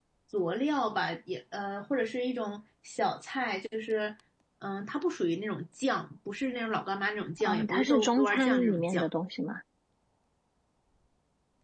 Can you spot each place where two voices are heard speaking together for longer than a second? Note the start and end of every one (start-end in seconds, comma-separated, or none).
7.4-9.1